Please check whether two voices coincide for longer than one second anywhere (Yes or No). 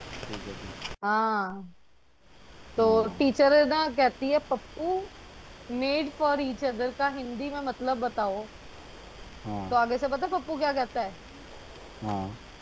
No